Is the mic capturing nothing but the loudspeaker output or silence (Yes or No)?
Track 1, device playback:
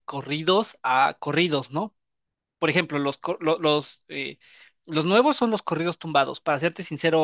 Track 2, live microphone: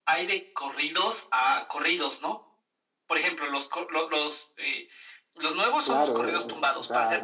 No